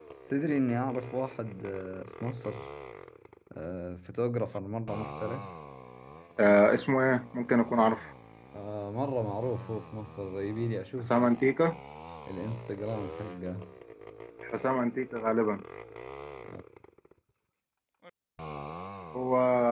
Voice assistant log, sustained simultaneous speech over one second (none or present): none